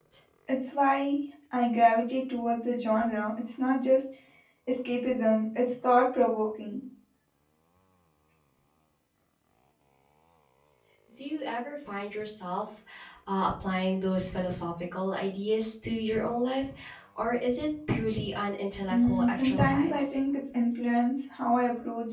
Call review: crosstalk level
present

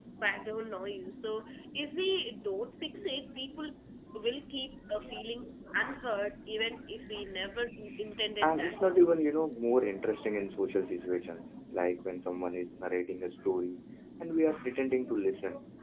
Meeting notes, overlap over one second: none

